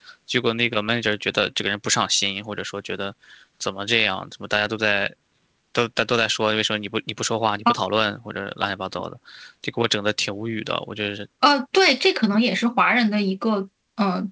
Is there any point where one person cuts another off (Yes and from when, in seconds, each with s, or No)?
No